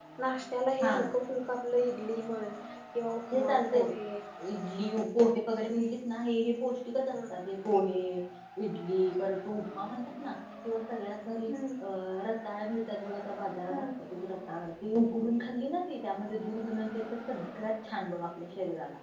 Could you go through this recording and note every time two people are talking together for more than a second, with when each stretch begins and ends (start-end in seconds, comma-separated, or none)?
none